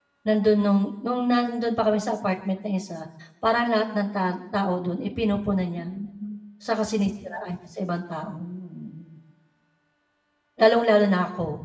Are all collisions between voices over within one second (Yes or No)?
Yes